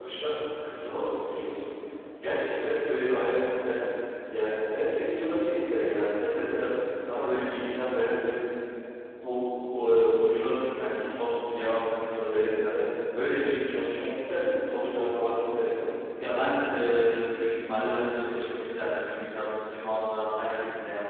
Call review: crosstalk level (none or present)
none